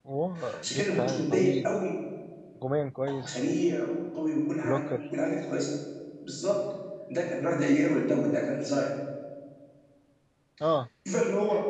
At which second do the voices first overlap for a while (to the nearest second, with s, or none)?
1 s